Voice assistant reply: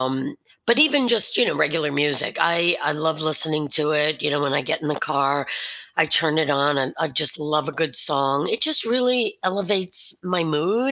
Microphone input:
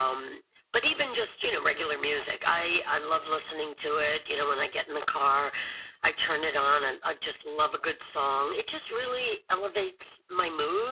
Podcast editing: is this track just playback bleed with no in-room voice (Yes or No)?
Yes